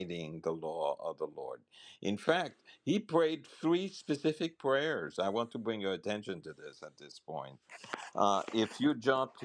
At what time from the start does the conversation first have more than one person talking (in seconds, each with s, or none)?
none